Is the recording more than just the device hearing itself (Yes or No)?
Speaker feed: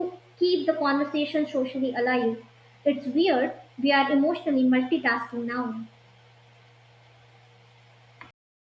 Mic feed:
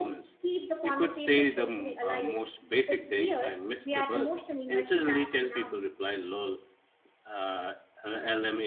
Yes